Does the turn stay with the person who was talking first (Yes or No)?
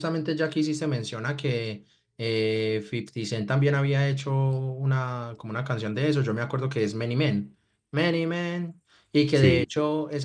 Yes